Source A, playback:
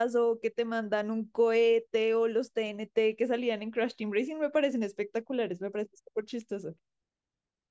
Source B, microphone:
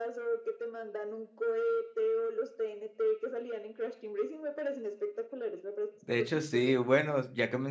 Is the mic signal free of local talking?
No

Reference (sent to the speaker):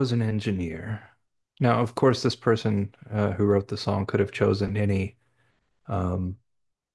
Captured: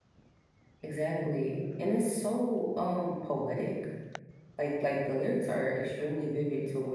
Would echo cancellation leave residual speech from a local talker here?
Yes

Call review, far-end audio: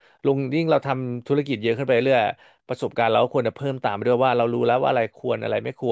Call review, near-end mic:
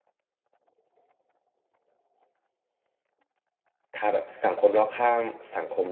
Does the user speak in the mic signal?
Yes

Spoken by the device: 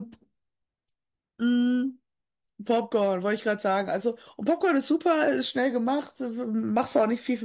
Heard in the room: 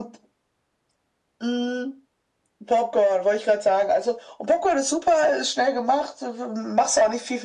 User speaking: No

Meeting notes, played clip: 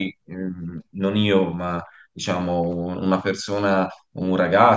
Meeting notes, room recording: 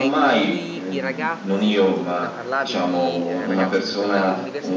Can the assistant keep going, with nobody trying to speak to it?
No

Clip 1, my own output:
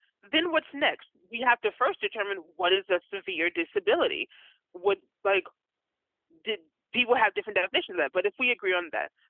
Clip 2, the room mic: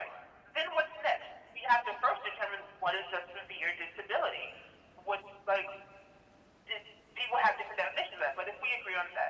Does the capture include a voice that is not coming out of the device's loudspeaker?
No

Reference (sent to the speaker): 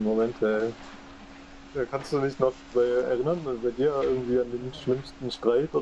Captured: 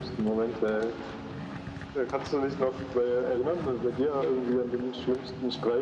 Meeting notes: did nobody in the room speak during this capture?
Yes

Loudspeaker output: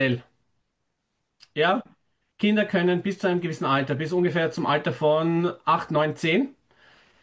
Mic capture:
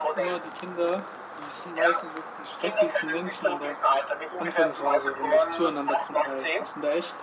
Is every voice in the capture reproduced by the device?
No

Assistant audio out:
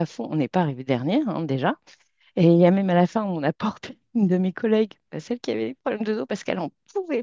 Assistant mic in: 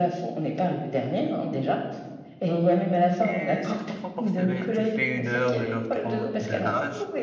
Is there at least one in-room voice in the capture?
Yes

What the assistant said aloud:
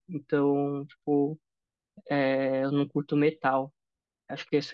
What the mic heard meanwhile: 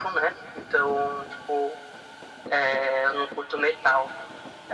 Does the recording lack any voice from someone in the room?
Yes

